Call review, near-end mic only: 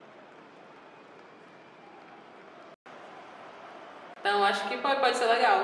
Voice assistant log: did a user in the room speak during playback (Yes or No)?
Yes